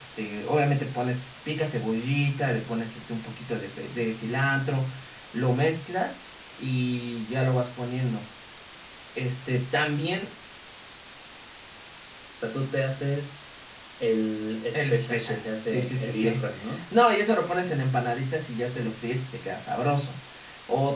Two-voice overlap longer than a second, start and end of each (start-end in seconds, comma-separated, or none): 14.7-16.4